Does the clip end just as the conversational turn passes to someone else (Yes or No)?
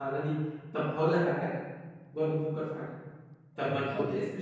No